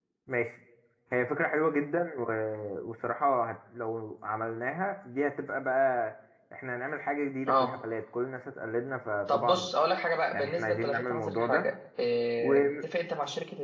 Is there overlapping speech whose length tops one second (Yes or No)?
Yes